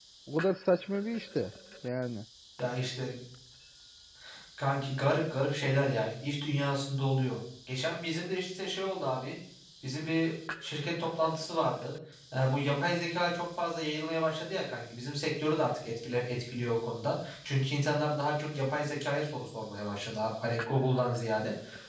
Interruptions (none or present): none